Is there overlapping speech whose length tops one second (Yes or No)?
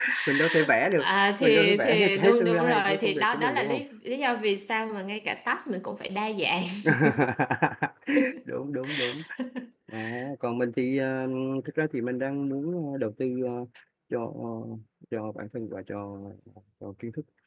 Yes